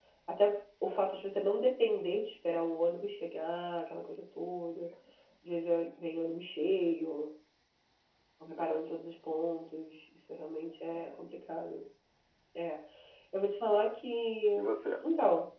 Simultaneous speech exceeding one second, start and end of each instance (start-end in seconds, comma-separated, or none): none